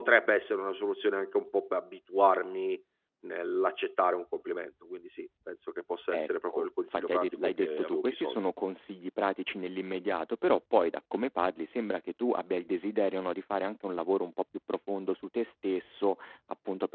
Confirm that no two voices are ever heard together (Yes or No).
No